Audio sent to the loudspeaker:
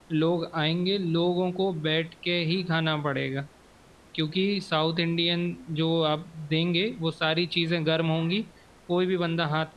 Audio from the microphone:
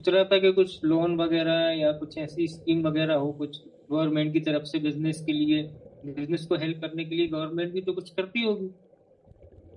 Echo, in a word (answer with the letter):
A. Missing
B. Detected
A